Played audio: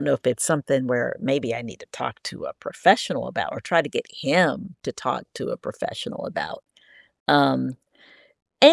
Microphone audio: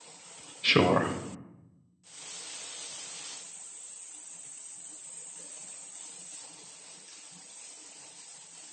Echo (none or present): none